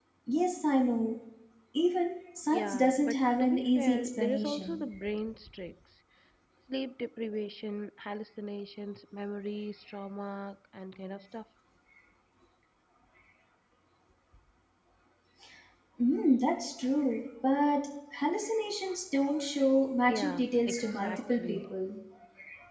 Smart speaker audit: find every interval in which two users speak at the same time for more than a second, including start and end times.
2.5-4.8, 20.1-21.7

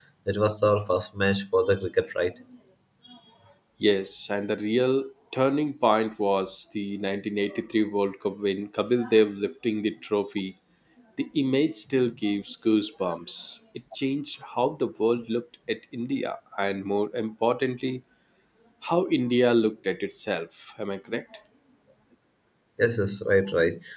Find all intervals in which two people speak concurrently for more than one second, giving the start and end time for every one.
none

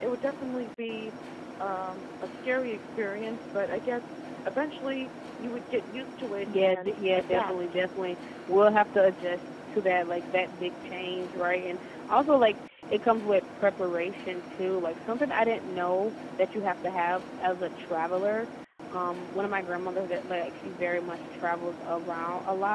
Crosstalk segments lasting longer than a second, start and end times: 6.5-7.8

